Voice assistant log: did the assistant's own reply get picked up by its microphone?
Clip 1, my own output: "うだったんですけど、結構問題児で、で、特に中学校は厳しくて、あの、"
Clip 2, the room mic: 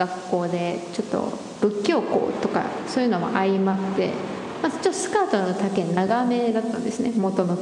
No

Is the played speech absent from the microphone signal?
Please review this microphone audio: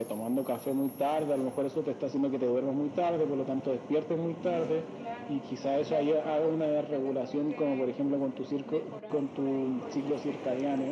No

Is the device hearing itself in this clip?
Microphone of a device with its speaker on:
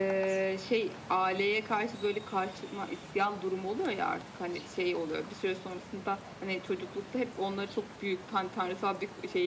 Yes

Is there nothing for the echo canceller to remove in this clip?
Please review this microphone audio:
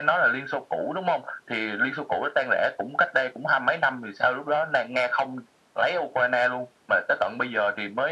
No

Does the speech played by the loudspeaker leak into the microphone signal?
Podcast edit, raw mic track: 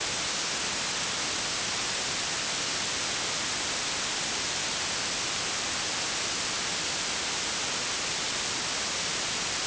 No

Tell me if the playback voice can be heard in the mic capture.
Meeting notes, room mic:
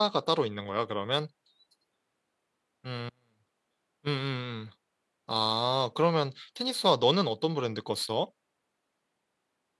No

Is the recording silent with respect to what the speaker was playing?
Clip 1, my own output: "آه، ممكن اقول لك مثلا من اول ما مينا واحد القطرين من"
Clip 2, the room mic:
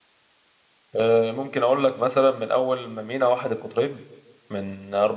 No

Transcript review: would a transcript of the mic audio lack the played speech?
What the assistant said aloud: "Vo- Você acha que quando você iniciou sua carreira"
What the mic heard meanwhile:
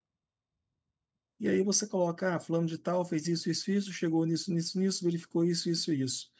Yes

